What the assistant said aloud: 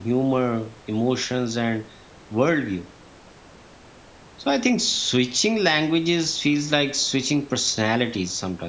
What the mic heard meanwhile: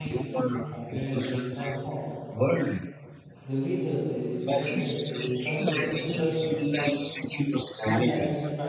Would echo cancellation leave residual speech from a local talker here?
Yes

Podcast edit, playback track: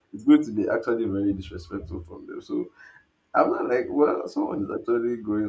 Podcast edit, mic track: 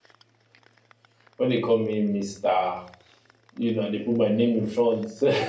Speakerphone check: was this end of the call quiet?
No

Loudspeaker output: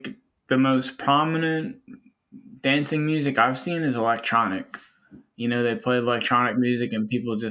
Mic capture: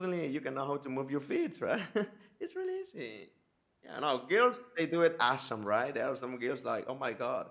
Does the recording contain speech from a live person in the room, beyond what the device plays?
Yes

